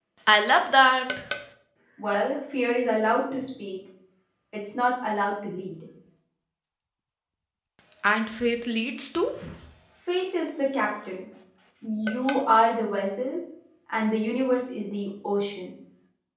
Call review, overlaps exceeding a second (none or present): none